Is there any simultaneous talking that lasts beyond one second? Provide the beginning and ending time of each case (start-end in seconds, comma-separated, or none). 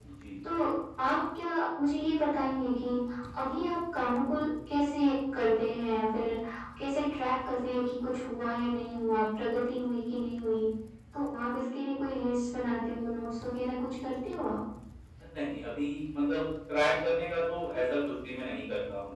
none